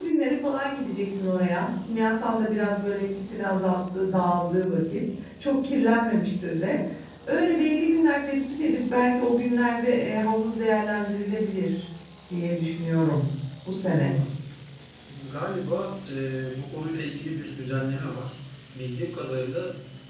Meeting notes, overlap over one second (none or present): none